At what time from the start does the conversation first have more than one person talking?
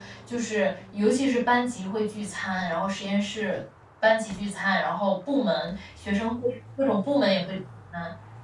none

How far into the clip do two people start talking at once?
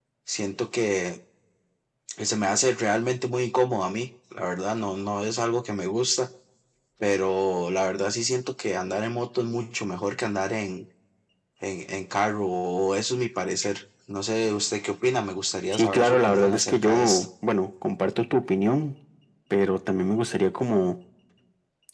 15.7 s

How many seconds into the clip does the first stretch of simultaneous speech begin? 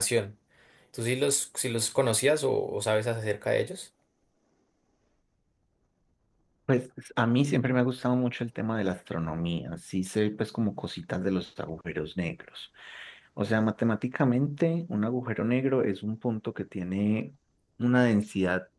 none

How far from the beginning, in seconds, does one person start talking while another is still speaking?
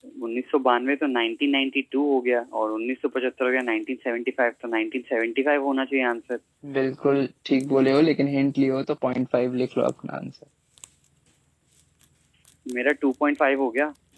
none

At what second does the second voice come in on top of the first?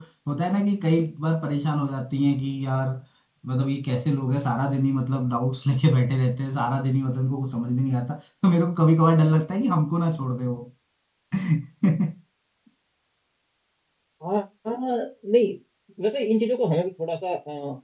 none

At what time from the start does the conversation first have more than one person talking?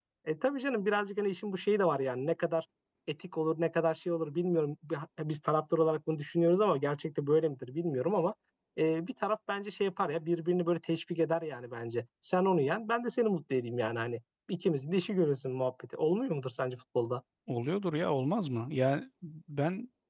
none

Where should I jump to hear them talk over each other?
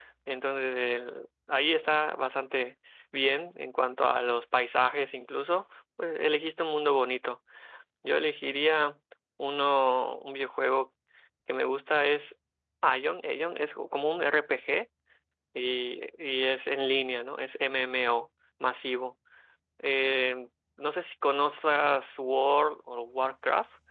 none

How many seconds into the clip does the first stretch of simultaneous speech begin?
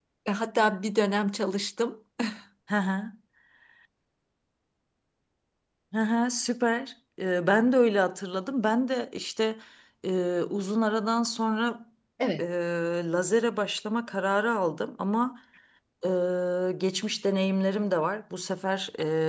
none

